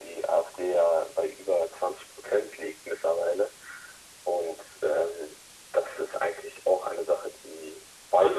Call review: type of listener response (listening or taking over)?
taking over